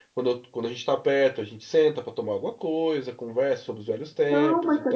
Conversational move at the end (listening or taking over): taking over